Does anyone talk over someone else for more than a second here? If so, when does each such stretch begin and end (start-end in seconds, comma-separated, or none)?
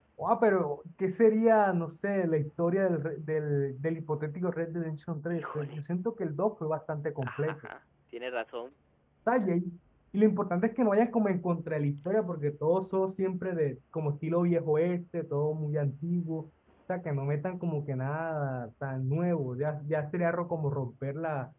none